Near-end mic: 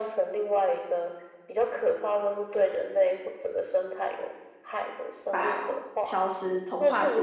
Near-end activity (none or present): present